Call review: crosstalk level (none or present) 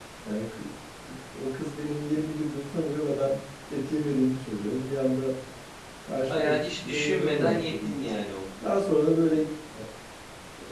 present